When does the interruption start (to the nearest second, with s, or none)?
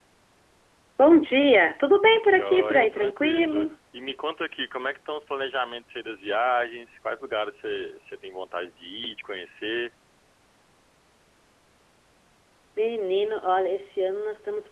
2 s